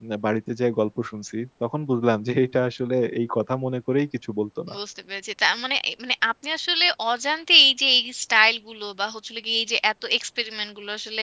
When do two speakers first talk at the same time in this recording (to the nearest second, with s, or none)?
none